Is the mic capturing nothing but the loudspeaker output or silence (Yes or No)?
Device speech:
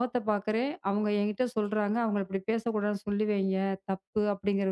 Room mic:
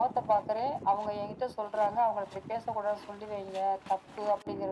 Yes